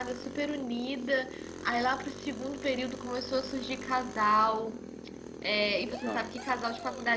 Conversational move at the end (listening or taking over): listening